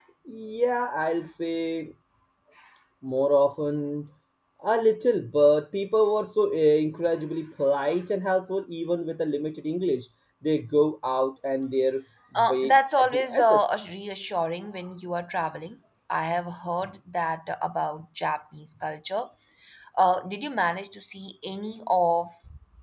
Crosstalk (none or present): present